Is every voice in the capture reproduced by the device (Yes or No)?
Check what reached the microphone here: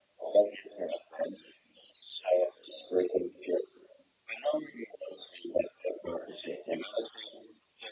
Yes